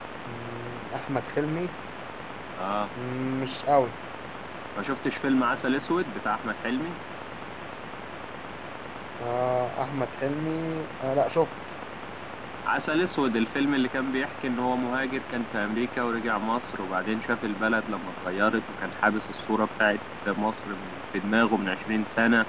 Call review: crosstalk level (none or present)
none